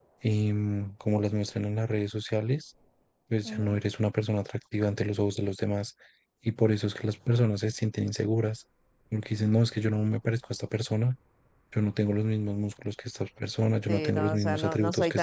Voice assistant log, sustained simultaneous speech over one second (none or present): present